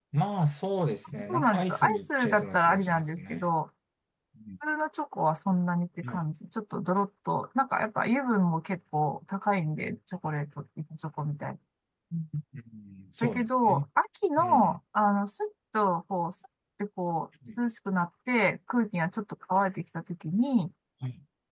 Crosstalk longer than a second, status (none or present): present